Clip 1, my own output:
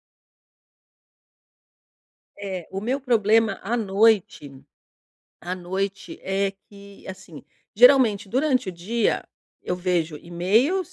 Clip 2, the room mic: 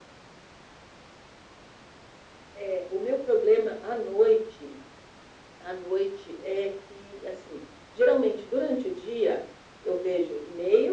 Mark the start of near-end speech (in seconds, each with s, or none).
none